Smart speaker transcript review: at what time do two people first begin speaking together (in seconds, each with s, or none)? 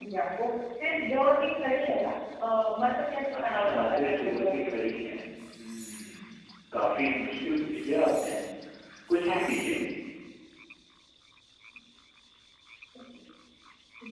3.4 s